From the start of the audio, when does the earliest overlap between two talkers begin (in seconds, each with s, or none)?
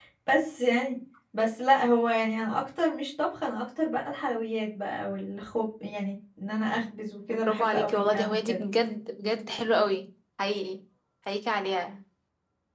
7.3 s